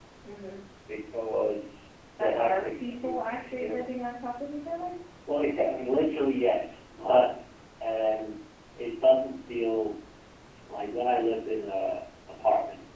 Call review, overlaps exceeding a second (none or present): present